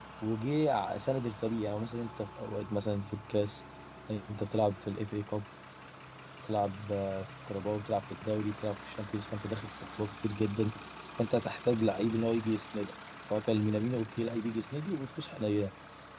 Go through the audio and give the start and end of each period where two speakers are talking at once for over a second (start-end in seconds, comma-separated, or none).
none